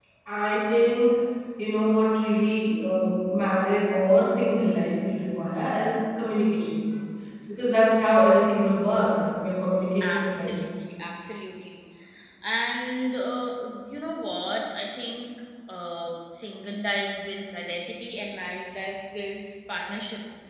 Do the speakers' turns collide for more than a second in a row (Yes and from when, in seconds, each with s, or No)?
No